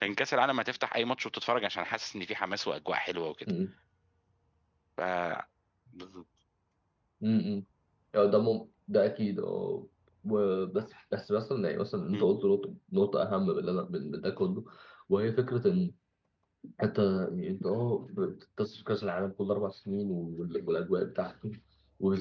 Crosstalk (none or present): none